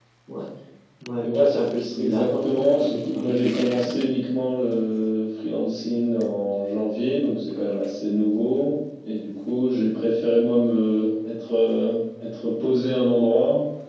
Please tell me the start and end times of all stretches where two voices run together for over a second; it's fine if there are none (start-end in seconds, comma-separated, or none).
2.0-4.1